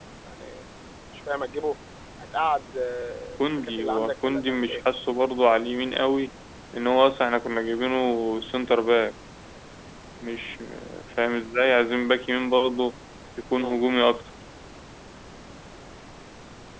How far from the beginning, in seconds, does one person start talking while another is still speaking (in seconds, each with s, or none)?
3.4 s